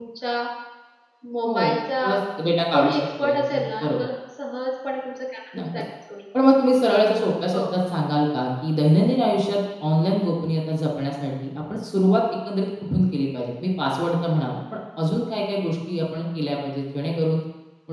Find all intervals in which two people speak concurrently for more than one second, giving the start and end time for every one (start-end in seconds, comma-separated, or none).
2.7-4.0